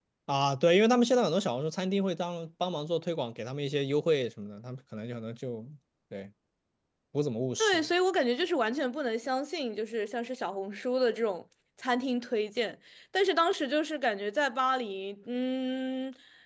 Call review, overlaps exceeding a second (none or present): none